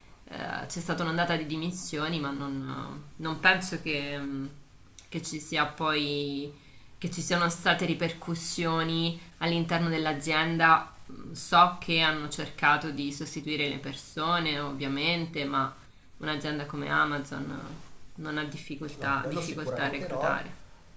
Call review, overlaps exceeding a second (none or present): present